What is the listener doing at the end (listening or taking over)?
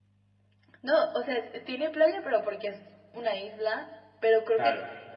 listening